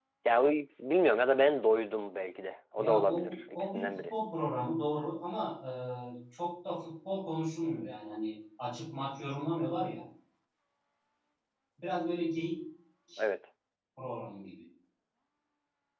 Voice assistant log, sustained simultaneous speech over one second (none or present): present